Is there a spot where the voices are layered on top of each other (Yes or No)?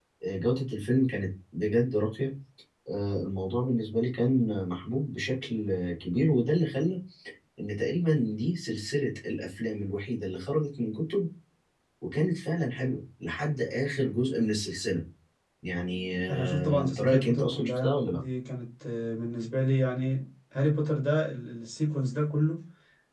Yes